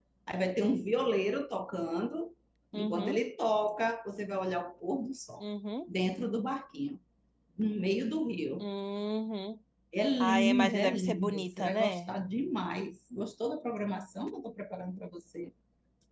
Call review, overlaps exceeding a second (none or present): present